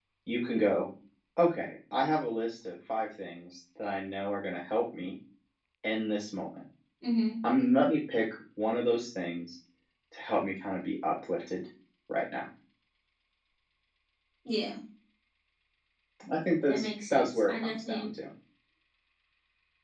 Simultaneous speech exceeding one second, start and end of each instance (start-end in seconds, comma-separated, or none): 16.7-18.1